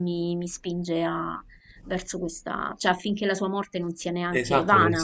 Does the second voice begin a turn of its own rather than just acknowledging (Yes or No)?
Yes